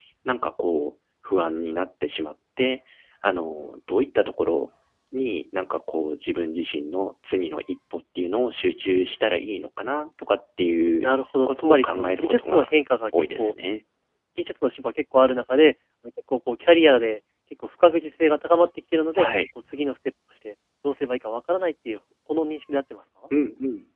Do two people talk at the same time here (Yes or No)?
Yes